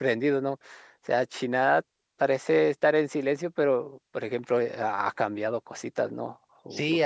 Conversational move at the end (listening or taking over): taking over